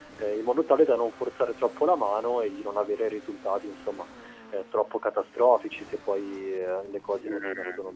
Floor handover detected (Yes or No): Yes